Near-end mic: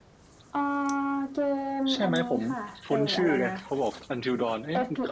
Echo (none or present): present